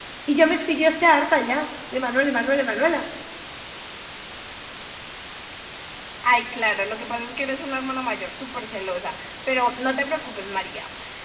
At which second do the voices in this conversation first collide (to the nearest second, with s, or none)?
none